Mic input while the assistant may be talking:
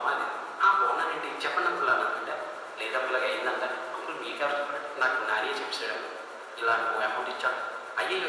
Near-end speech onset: none

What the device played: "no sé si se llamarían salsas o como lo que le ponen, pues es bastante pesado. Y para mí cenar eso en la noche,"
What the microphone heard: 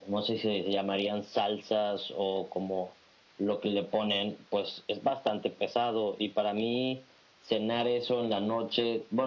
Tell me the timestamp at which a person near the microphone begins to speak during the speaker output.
none

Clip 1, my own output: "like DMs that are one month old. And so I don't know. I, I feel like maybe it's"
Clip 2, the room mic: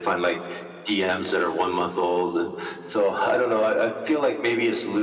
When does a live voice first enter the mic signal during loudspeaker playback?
none

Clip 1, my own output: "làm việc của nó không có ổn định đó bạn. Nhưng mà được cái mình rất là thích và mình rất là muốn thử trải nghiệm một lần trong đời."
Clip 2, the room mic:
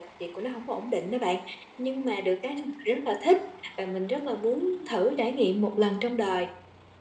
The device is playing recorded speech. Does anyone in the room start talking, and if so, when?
none

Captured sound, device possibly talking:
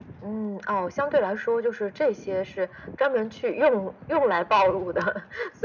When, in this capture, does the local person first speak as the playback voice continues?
none

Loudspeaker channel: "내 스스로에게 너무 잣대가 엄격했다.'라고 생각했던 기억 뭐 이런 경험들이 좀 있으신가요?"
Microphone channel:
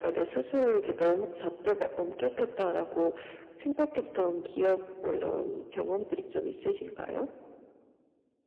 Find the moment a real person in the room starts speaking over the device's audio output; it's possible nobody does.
none

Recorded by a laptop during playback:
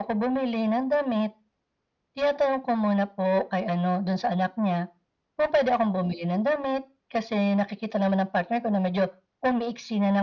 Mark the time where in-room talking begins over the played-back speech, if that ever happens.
none

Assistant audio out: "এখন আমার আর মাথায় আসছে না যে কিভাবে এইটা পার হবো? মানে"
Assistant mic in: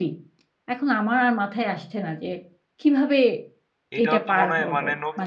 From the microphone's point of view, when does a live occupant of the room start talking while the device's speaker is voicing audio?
4.0 s

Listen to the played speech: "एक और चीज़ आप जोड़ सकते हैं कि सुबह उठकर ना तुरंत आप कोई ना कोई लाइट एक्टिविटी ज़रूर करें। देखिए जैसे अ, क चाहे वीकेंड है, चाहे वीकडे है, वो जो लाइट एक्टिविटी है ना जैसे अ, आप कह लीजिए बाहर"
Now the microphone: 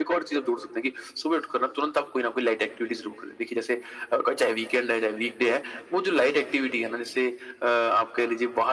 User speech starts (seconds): none

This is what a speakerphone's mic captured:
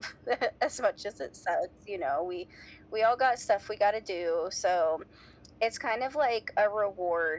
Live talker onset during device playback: none

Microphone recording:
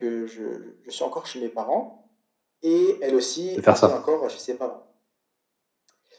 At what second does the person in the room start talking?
3.6 s

